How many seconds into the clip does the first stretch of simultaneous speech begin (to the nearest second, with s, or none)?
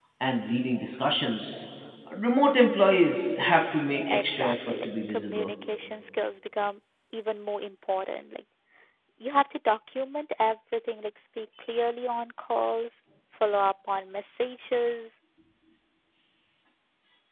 4 s